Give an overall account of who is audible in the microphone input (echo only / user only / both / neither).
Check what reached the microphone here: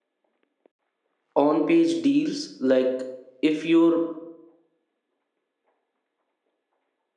user only